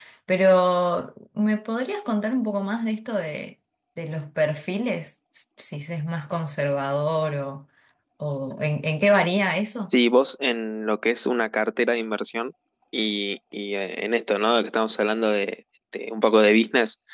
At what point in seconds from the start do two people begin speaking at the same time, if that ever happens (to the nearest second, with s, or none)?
none